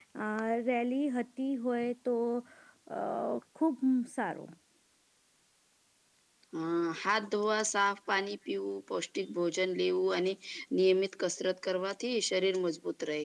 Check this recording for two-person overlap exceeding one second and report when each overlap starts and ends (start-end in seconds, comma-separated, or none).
none